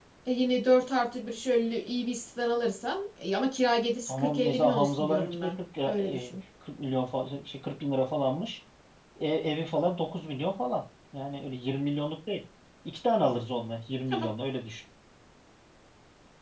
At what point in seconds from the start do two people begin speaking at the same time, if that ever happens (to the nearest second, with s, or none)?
4 s